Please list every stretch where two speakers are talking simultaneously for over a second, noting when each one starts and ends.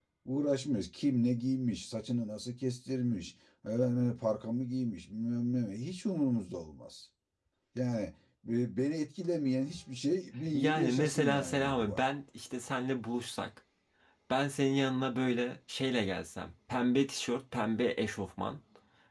10.5-12.0

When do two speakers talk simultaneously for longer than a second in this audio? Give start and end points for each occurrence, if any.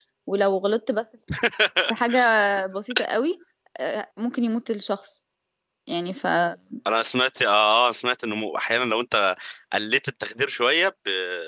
none

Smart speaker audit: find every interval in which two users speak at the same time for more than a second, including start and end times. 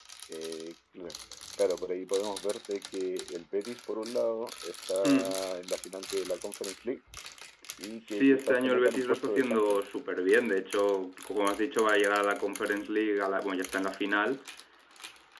8.0-9.9

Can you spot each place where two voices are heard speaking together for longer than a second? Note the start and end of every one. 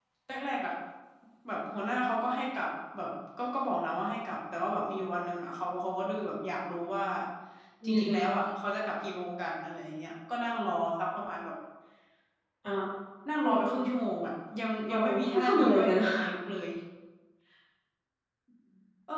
14.9-16.1

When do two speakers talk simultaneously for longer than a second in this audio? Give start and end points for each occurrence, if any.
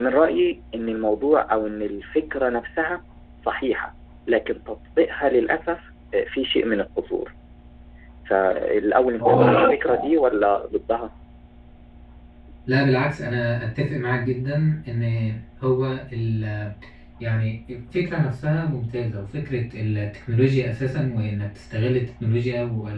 none

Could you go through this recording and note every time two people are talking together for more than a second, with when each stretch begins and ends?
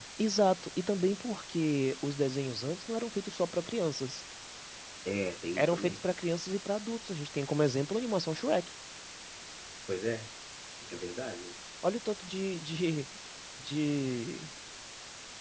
none

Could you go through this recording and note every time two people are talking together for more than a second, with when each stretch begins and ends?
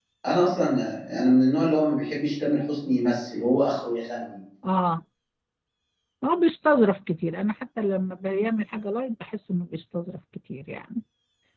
none

